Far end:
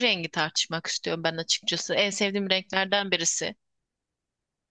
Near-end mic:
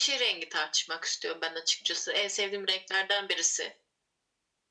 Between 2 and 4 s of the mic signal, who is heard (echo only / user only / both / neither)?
echo only